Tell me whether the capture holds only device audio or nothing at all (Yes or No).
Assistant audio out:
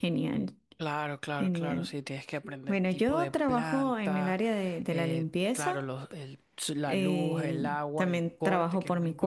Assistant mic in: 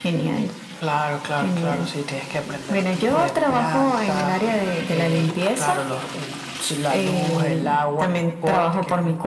Yes